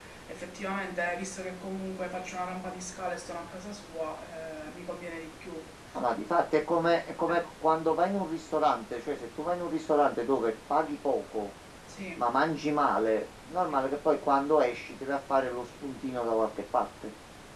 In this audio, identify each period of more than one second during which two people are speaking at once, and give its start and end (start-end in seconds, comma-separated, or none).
none